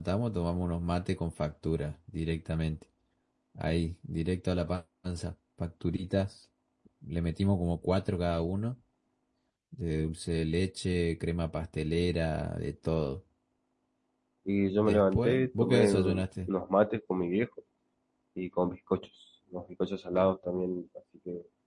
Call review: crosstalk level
present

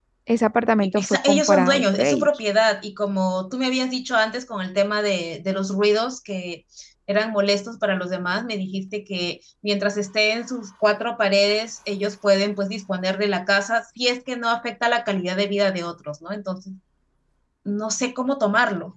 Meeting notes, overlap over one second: present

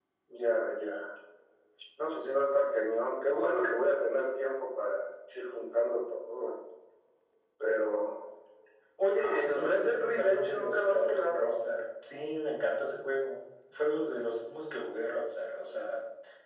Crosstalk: present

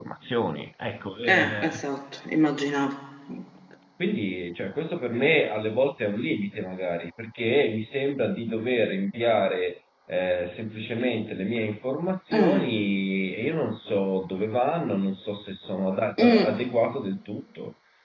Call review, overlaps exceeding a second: none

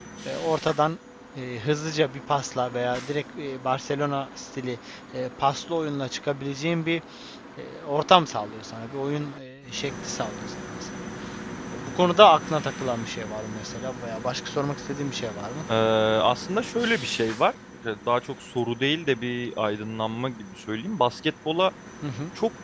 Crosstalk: none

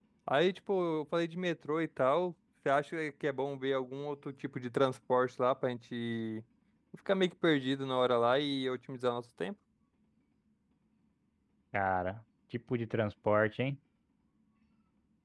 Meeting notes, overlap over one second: none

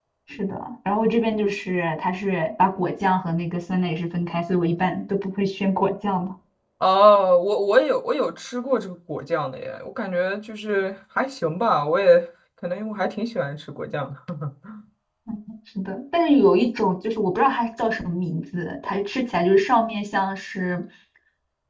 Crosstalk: none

